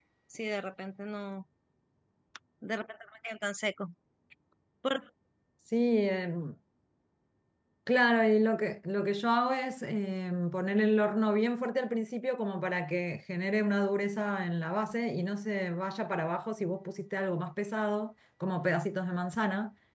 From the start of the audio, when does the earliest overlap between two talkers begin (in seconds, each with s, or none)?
none